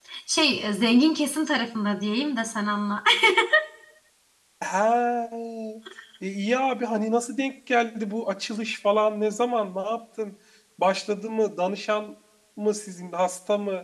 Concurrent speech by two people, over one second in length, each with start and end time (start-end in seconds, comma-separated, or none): none